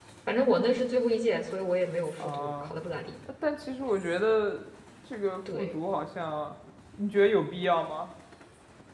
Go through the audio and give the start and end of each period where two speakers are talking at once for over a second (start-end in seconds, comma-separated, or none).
none